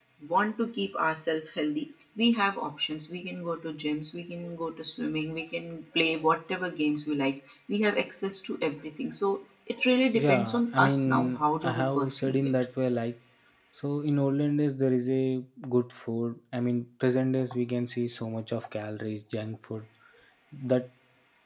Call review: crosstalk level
present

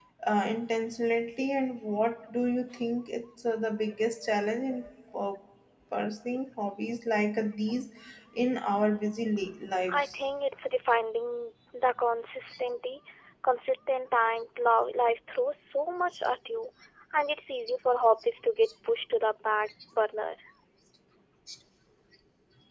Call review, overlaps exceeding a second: none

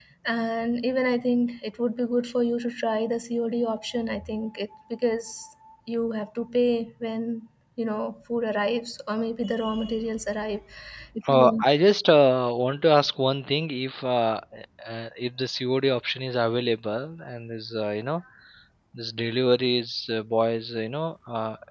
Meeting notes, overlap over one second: none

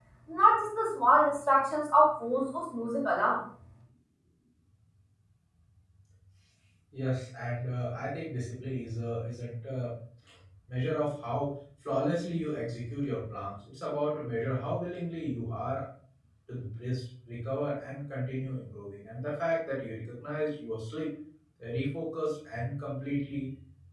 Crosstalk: none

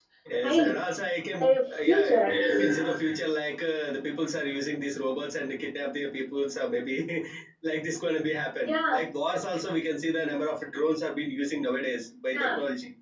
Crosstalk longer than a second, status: present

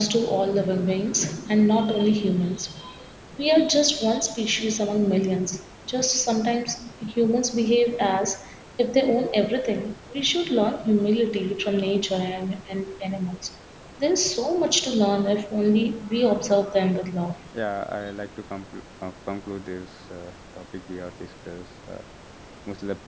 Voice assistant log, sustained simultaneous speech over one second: none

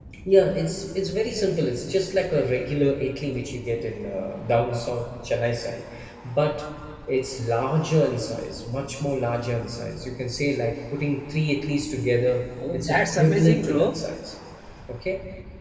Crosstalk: present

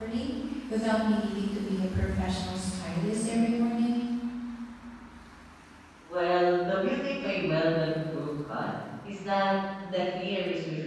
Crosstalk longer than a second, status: none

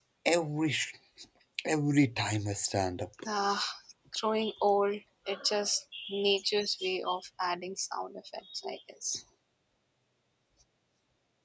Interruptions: none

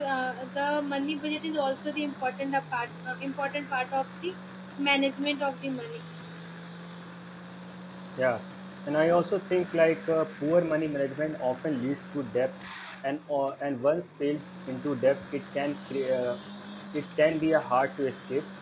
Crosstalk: none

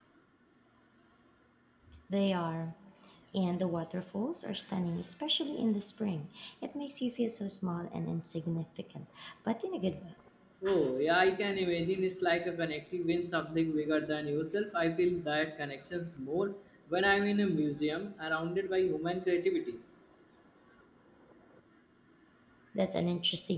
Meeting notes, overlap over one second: none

